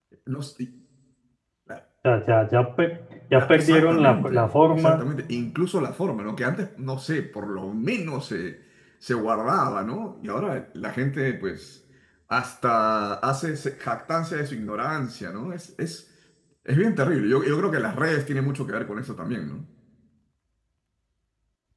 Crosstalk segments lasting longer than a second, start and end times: 3.3-5.0

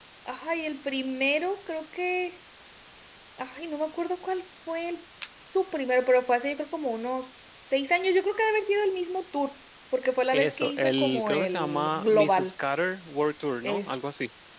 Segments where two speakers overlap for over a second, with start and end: 10.3-12.5

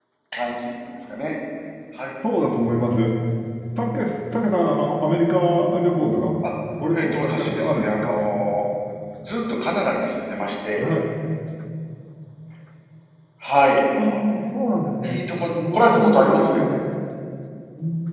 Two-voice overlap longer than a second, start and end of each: 6.9-8.2, 15.0-16.6

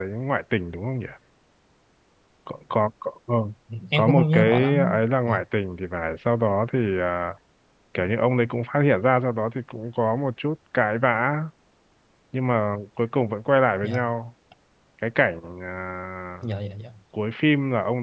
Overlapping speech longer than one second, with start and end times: 4.0-5.4

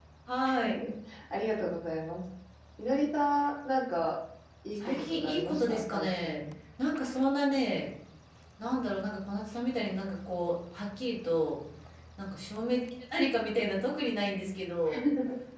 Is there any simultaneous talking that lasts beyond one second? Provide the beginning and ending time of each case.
4.8-6.4

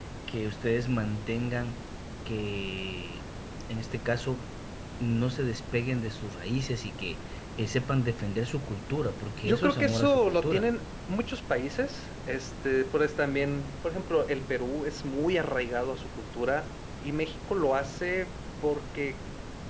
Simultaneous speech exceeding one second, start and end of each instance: 9.4-10.7

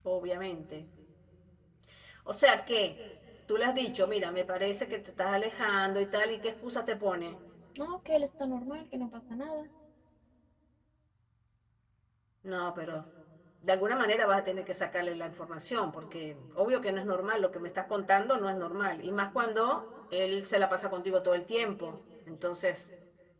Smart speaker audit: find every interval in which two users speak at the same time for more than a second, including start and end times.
none

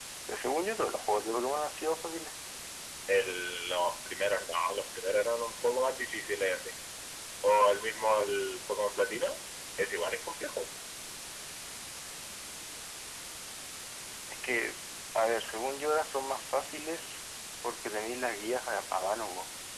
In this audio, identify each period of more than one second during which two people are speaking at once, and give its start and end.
none

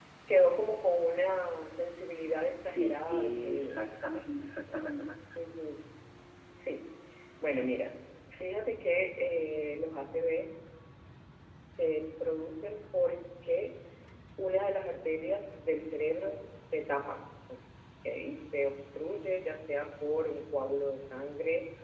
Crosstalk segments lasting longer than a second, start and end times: 2.6-3.9

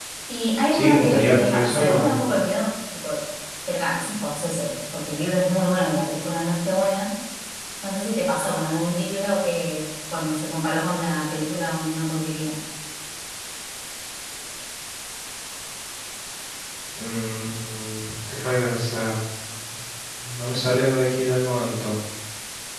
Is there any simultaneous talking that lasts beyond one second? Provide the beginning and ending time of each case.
0.7-2.1

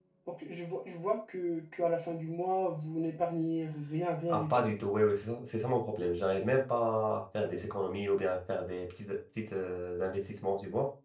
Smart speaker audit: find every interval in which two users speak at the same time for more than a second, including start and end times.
none

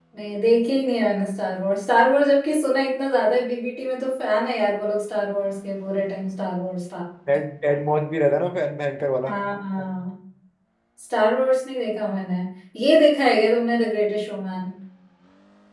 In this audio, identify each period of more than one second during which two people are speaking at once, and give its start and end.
none

